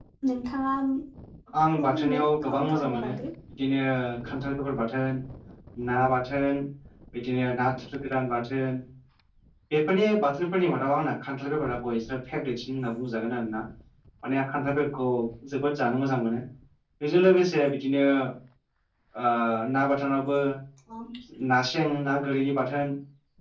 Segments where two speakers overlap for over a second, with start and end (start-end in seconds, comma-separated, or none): 1.8-3.1